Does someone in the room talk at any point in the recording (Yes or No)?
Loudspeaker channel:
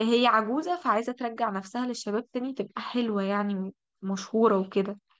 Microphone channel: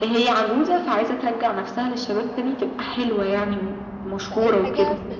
Yes